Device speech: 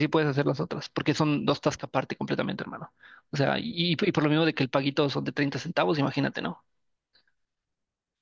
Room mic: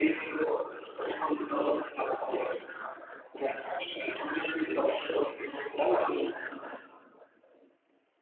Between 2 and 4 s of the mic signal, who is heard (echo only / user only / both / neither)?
echo only